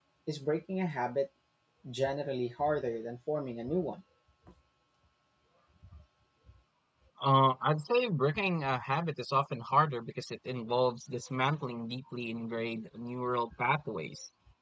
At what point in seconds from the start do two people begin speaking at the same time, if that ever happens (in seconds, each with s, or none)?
none